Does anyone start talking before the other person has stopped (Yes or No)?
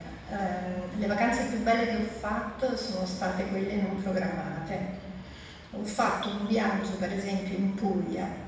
No